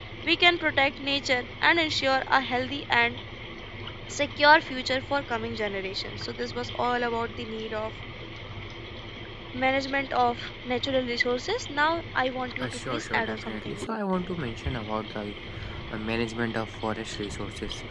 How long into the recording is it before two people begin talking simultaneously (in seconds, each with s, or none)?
12.6 s